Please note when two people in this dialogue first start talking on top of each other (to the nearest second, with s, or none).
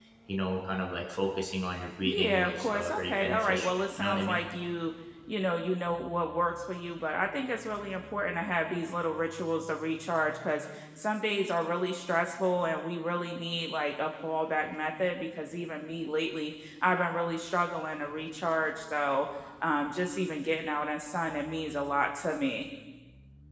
2 s